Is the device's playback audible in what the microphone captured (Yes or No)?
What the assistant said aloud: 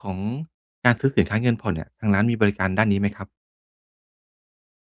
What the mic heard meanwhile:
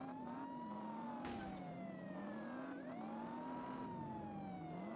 No